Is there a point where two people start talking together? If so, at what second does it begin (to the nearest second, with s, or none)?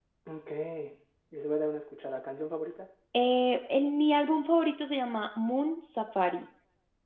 none